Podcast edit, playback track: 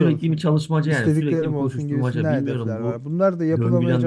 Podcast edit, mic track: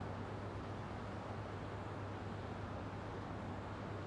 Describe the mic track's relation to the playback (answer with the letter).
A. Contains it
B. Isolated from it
B